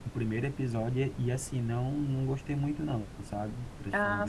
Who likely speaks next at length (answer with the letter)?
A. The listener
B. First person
A